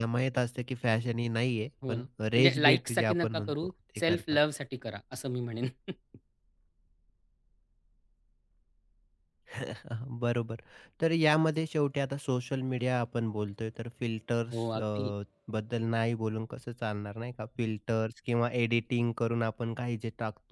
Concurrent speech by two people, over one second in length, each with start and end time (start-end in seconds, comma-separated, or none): 2.4-4.4